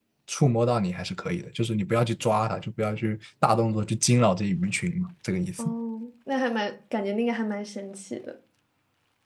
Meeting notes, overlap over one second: none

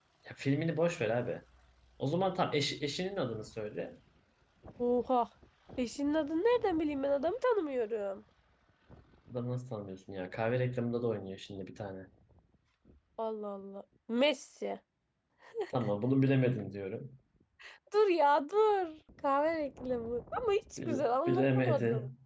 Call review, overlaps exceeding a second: present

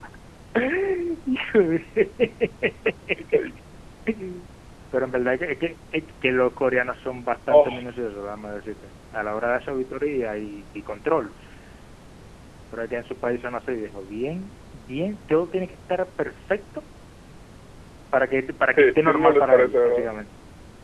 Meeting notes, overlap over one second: present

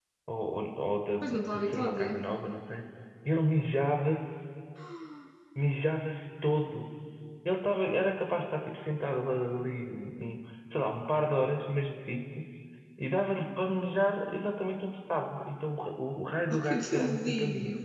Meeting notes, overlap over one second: present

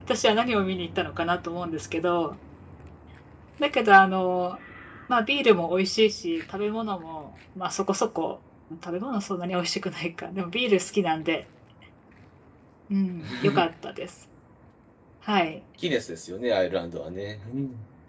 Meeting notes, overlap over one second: none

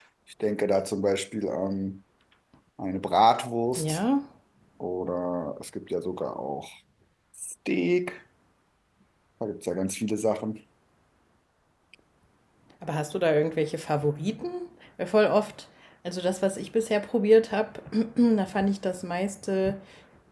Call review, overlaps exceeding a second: none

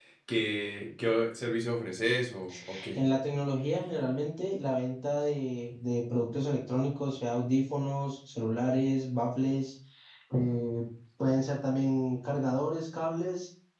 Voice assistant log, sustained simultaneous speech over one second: none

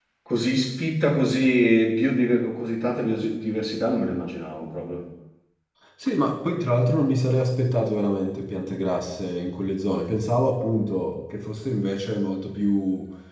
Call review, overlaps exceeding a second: none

